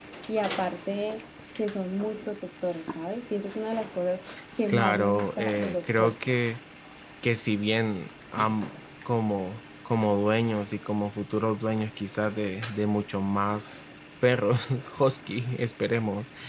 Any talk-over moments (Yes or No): Yes